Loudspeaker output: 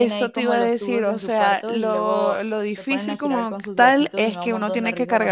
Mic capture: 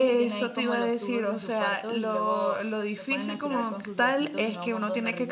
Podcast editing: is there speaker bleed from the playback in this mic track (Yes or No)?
Yes